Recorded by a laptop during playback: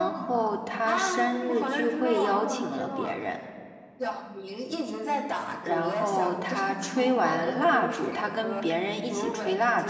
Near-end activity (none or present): present